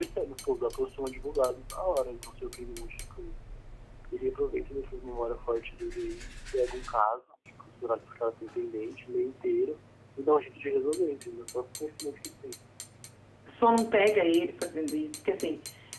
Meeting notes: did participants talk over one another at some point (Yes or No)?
No